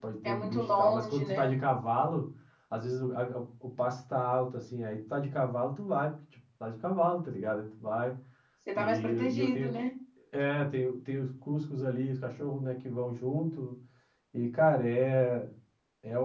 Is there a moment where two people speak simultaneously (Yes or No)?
Yes